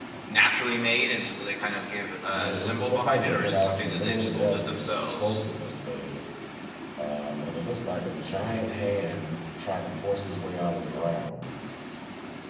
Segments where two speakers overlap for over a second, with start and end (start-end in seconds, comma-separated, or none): 2.3-5.4